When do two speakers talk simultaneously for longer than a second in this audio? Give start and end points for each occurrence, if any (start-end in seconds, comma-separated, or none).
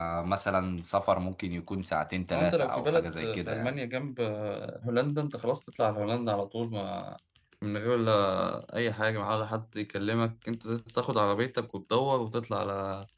2.3-3.7